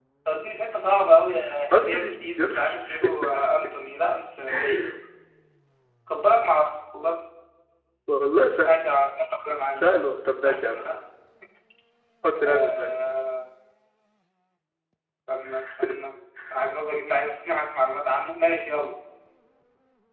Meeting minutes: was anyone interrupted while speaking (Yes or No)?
Yes